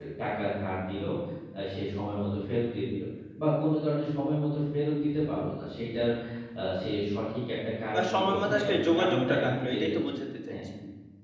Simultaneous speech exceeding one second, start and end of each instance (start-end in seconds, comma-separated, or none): 7.9-9.8